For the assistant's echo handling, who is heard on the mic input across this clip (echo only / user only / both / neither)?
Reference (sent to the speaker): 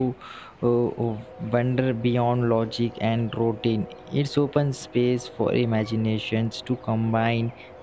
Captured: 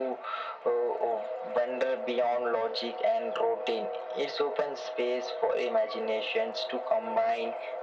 echo only